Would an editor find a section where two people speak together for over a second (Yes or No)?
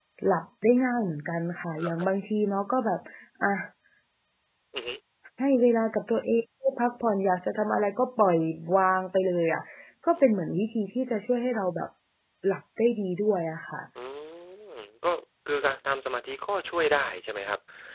No